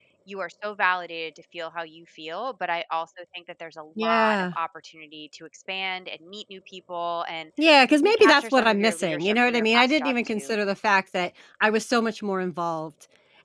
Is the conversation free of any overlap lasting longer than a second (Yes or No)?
No